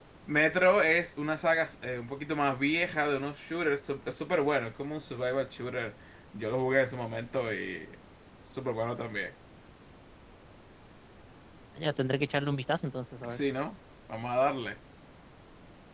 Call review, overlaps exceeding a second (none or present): none